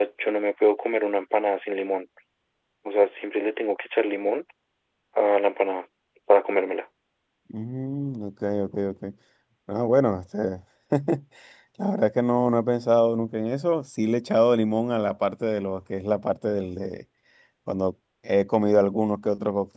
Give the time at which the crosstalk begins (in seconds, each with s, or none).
none